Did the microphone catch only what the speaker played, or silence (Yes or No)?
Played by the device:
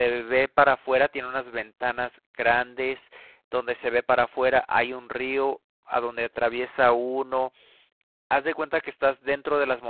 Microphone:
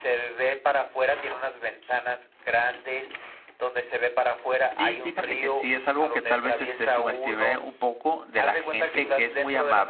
No